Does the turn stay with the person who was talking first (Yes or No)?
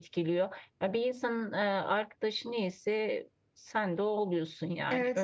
No